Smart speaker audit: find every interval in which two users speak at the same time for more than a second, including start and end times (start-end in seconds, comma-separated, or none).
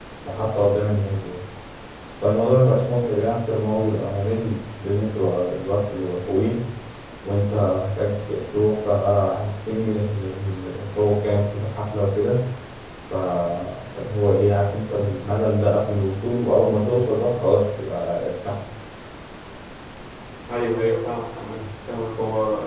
none